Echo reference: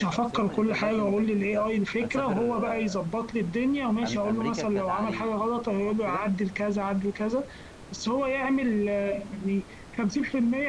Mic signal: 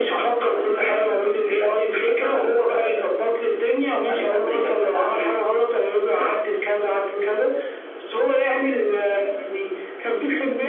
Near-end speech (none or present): none